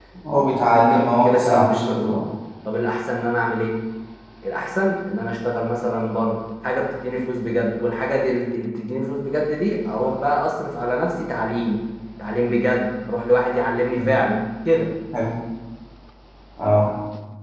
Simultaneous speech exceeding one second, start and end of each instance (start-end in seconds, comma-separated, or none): 0.8-2.2